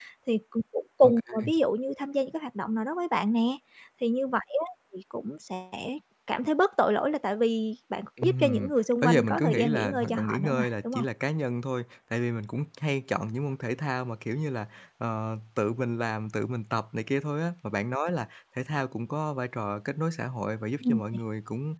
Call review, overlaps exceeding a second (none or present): present